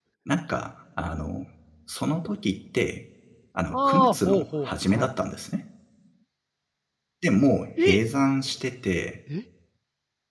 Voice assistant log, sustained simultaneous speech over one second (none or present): present